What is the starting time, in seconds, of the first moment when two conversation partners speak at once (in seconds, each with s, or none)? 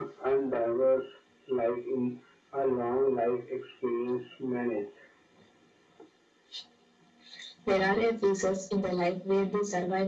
none